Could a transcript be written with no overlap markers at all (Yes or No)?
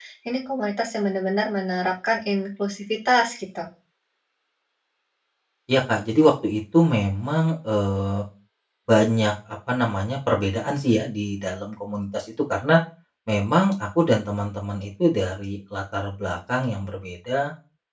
Yes